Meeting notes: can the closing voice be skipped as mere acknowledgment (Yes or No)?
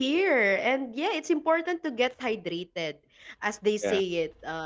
Yes